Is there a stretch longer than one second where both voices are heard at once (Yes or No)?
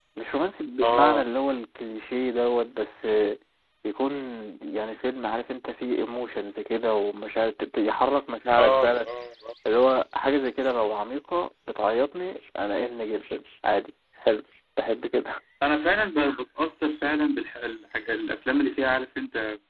No